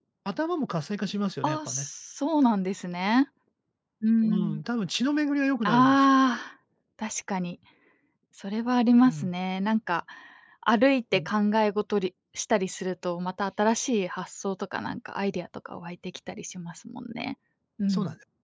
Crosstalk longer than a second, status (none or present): none